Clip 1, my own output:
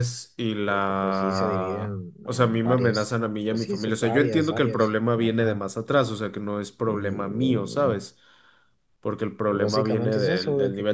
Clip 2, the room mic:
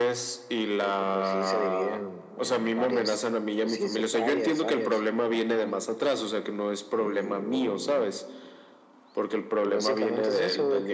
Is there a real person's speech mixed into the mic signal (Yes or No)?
No